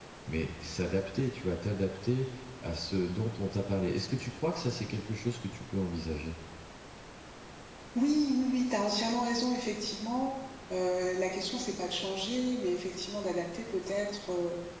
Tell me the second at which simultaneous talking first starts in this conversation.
none

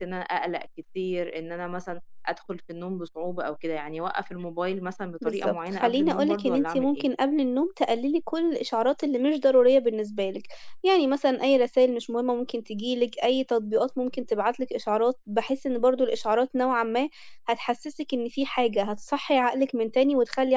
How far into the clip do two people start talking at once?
5 s

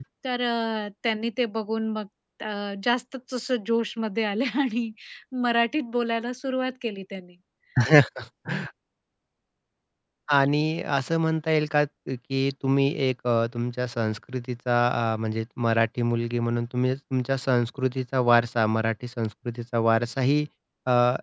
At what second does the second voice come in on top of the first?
none

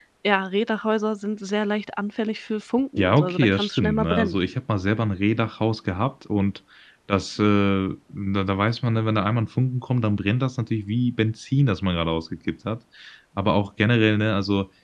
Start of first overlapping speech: 3 s

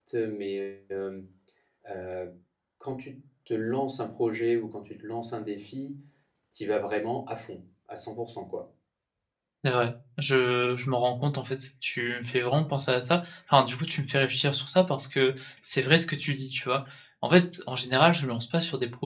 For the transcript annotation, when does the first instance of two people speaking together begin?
none

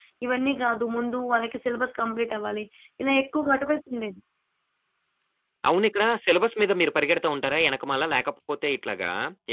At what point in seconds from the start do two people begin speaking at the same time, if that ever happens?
none

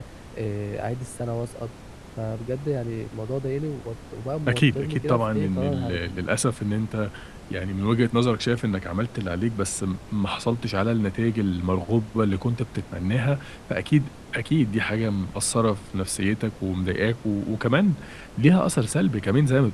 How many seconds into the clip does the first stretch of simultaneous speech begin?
4 s

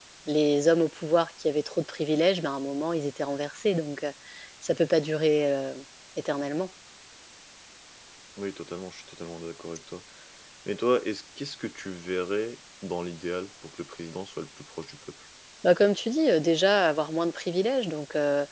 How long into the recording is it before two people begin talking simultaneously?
none

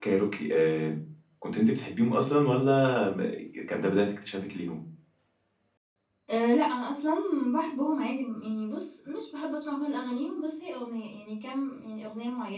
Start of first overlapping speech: none

